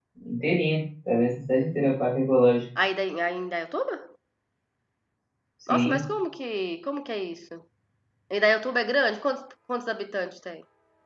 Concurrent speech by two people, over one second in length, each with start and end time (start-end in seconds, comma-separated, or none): none